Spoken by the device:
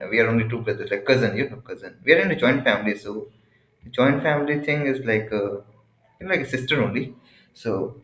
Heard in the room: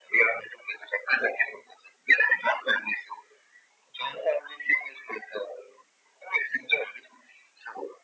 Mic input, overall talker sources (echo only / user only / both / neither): echo only